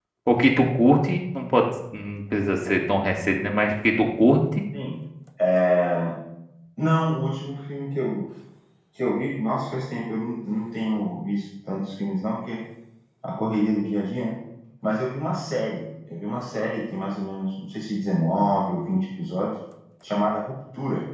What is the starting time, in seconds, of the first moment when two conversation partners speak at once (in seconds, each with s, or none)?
none